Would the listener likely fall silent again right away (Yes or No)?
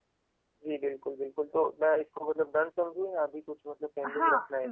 No